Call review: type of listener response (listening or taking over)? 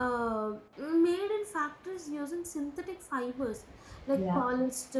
listening